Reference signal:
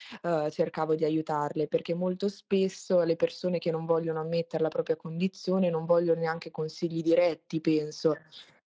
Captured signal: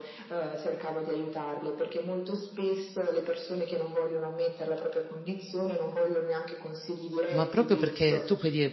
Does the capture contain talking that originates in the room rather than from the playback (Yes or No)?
Yes